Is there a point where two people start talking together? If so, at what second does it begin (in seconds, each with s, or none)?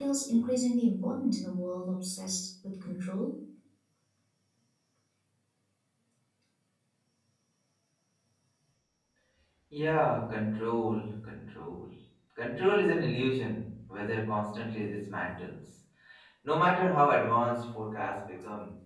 none